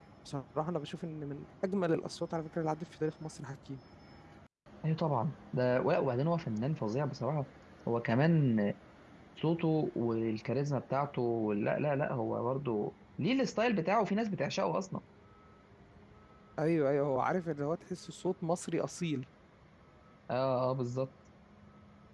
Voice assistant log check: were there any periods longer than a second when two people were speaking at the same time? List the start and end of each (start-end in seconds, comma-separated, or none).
none